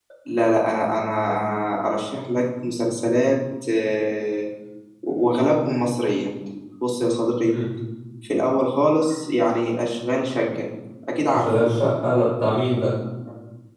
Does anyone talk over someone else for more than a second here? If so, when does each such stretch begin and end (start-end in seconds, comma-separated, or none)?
none